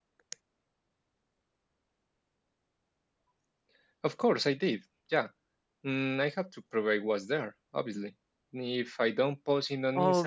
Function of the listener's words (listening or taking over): taking over